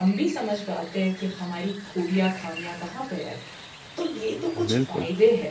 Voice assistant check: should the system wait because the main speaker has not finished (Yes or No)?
Yes